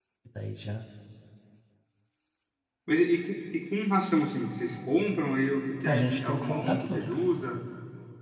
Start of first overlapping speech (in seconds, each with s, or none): 5.8 s